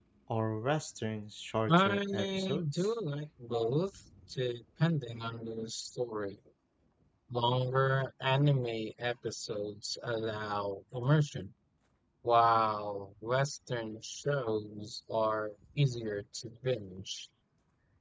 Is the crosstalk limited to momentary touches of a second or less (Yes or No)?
No